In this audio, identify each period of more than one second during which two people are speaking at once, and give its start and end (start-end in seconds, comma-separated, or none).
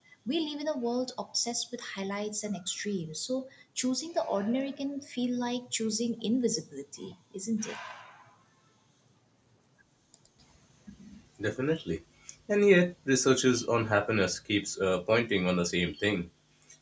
none